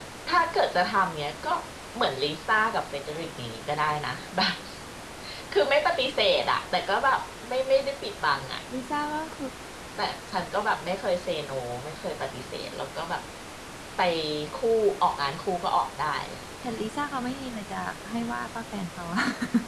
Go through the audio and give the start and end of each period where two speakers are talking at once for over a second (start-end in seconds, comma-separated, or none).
none